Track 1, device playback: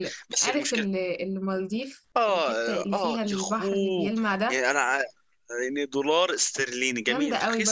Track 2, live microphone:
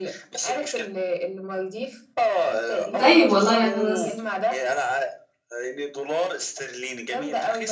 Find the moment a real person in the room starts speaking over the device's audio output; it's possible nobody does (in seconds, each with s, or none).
3.0 s